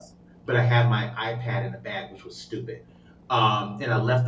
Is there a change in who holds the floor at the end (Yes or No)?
No